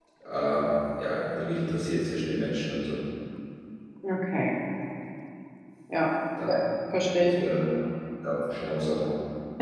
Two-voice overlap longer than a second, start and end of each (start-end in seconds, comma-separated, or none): none